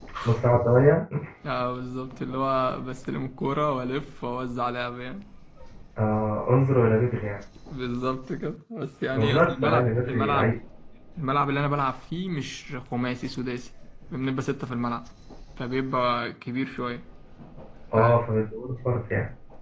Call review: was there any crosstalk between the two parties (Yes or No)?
Yes